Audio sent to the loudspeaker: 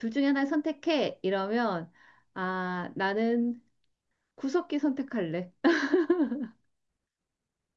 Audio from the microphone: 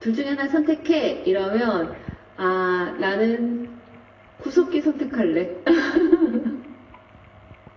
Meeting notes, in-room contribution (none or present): none